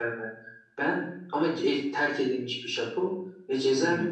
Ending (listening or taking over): listening